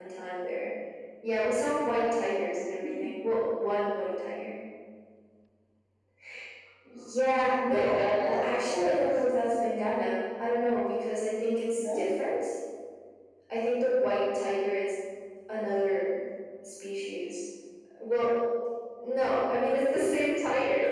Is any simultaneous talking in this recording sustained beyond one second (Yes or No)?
Yes